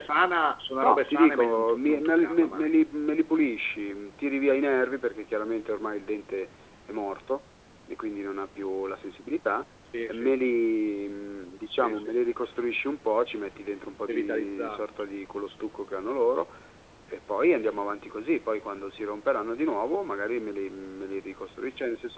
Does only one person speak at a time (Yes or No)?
No